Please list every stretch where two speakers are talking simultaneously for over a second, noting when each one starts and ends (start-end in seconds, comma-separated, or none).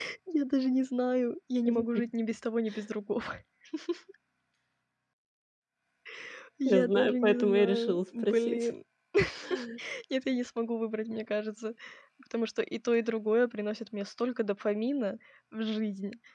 6.6-8.7